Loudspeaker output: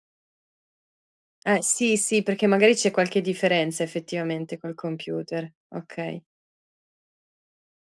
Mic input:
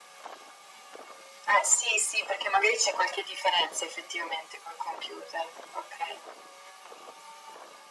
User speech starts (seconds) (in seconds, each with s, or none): none